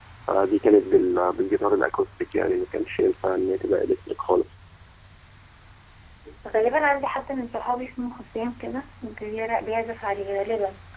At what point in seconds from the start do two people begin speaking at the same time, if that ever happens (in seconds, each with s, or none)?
none